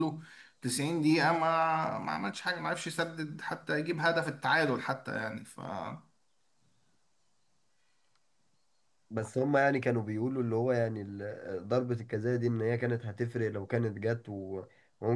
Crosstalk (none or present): none